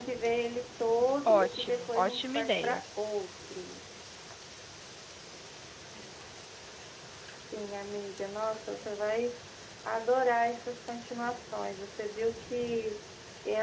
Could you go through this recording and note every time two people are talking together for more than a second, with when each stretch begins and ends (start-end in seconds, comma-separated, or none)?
1.3-2.8